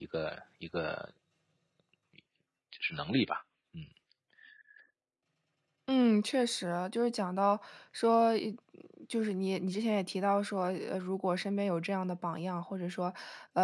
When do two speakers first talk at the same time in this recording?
none

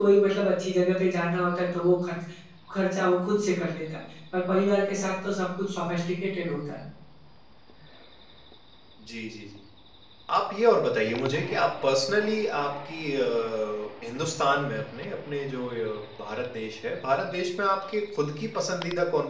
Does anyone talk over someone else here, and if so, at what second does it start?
none

